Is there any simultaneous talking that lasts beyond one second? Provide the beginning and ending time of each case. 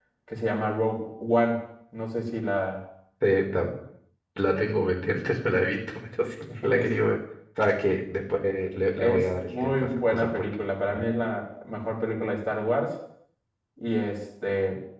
9.0-10.4

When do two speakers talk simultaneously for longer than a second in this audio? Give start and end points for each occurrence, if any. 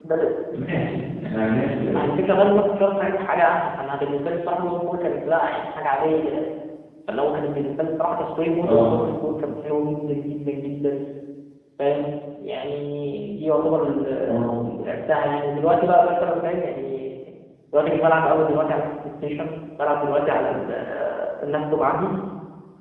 none

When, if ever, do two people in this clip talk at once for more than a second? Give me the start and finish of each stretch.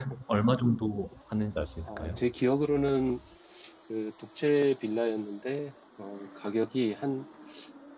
none

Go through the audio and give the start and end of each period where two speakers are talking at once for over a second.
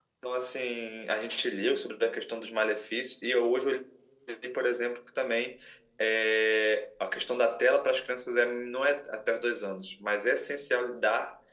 none

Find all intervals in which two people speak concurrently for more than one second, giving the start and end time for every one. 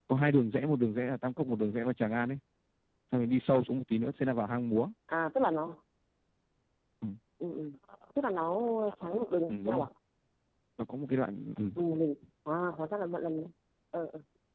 none

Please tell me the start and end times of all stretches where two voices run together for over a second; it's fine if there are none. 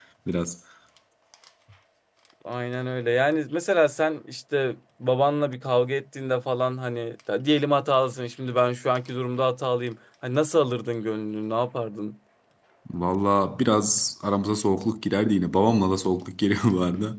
none

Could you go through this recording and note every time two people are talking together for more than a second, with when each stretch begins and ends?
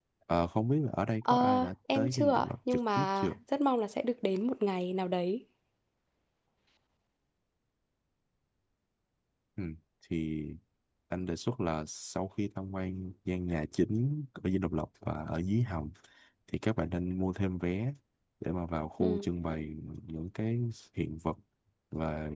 1.2-3.3

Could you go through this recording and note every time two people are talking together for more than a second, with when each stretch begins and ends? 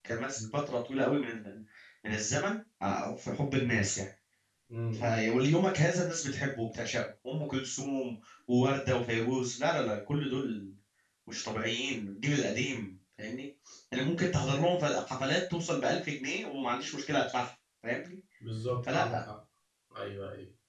none

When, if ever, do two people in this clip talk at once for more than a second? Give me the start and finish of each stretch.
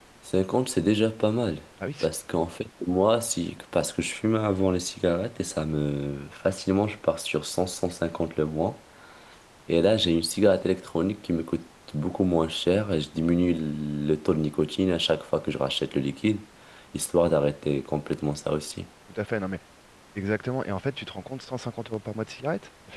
none

